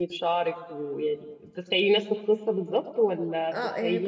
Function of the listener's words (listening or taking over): taking over